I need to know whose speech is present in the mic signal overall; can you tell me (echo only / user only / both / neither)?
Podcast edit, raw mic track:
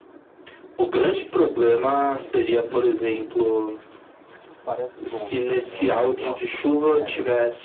both